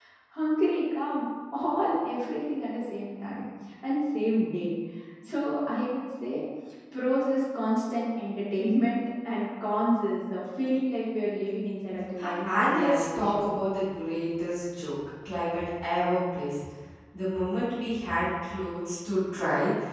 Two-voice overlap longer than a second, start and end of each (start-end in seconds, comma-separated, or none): 12.2-13.4